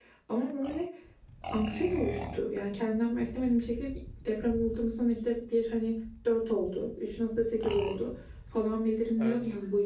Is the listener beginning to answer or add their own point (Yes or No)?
No